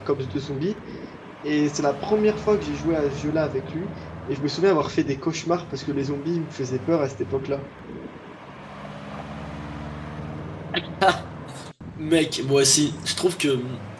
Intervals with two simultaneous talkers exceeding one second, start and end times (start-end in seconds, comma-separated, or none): none